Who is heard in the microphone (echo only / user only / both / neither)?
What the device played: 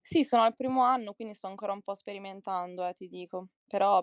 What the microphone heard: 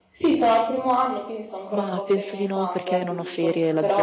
both